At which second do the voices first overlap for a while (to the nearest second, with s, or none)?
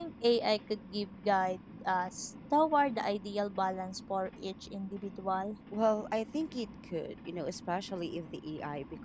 none